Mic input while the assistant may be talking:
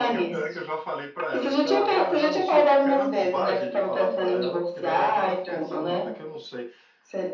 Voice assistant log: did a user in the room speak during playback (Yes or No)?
Yes